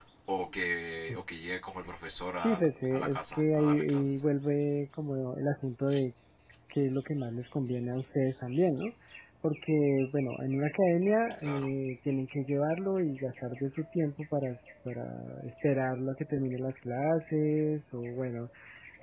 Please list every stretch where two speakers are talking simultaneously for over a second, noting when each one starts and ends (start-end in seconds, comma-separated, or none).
2.4-4.2